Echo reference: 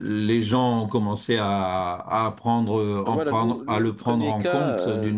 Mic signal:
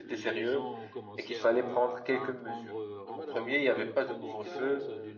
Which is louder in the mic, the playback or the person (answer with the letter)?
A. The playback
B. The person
B